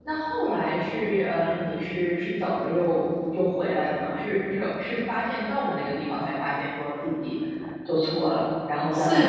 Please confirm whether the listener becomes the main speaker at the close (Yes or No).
Yes